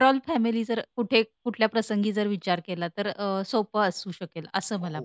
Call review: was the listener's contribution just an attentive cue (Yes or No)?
No